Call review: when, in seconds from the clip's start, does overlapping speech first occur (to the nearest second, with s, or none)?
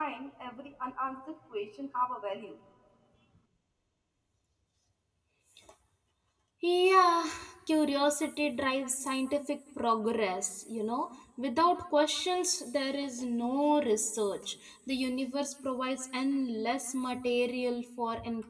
none